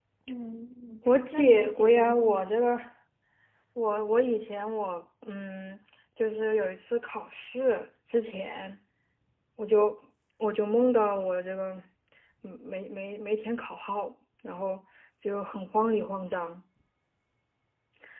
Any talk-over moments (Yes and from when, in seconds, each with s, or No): Yes, from 1.1 s